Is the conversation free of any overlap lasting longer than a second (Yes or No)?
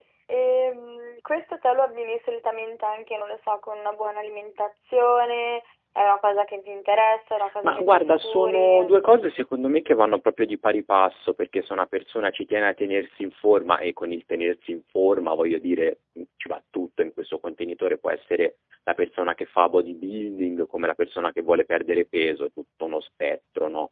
No